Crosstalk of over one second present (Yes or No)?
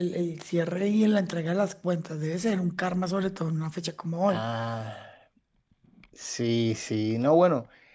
No